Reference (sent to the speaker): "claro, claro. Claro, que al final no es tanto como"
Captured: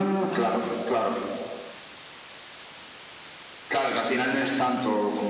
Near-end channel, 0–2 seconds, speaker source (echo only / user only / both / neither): echo only